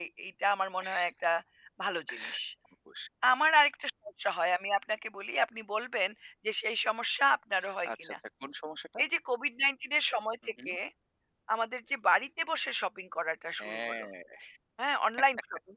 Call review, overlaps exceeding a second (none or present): none